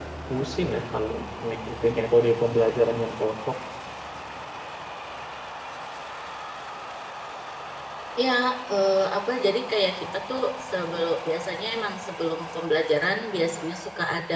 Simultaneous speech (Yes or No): No